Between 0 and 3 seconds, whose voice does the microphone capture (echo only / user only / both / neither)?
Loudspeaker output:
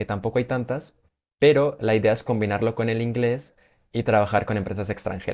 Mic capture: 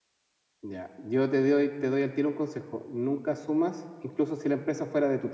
user only